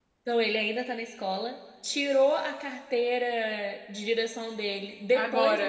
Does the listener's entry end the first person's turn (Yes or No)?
No